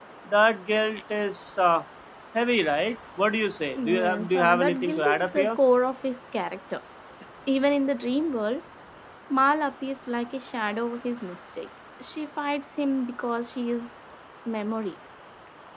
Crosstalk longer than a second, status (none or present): present